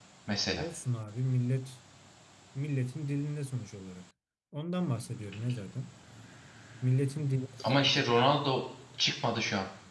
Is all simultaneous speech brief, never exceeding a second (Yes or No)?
Yes